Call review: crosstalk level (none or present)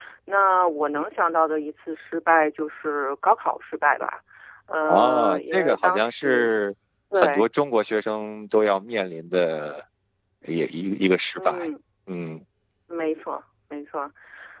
present